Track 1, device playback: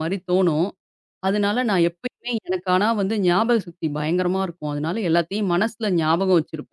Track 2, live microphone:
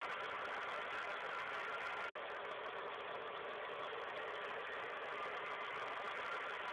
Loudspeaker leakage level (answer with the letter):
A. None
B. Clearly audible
A